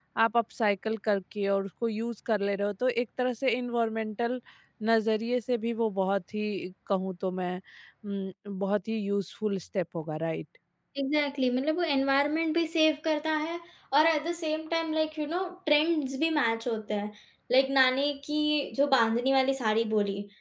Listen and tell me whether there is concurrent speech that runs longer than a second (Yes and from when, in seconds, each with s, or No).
No